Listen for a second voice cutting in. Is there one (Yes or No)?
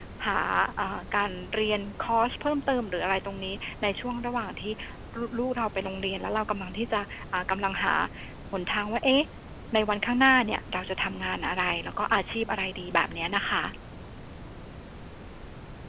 No